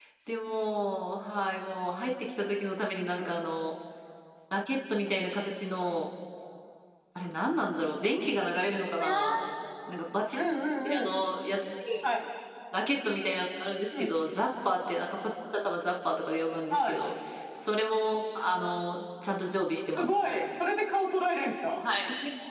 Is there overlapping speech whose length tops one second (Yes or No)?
No